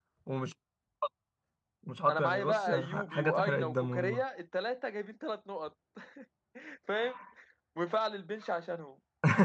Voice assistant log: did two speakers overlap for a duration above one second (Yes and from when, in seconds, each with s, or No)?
Yes, from 2.1 s